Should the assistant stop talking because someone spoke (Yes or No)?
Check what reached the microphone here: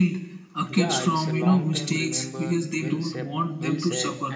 Yes